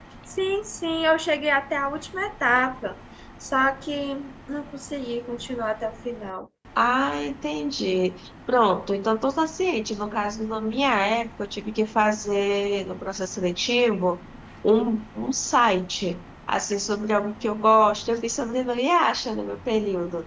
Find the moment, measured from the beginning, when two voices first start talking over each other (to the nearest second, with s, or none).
none